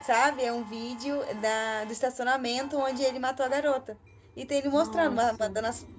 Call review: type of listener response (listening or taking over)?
listening